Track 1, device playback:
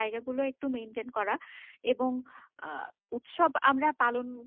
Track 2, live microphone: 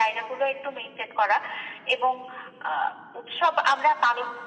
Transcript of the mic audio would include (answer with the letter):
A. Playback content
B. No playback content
A